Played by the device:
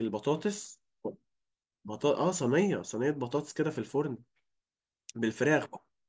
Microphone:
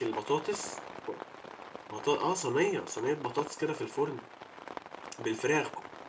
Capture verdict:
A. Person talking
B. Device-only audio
B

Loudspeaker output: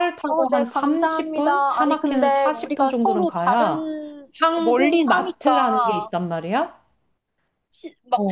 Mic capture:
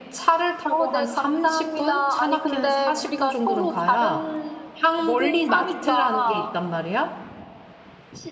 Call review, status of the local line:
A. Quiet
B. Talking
A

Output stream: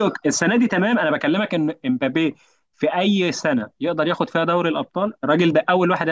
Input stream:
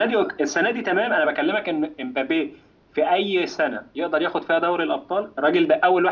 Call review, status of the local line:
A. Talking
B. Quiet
B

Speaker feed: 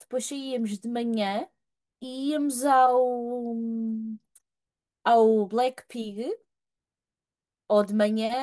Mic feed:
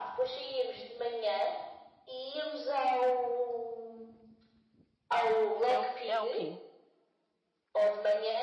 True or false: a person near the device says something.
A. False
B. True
B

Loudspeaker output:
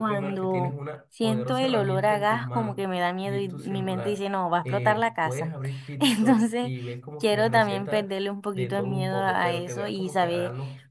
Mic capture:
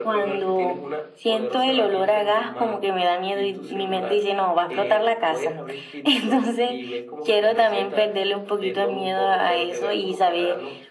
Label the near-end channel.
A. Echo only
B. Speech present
A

